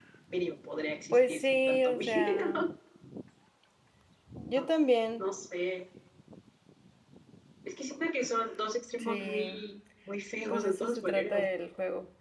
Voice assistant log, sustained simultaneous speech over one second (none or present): present